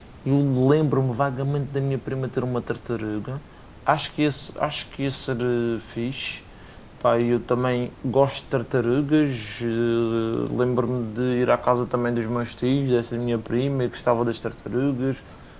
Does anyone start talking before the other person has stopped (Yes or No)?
No